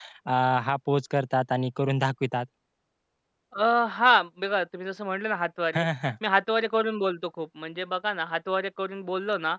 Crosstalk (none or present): none